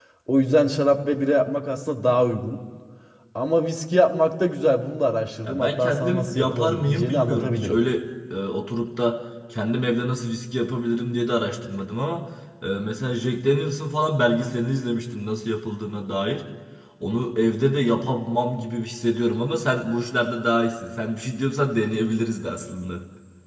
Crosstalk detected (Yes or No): Yes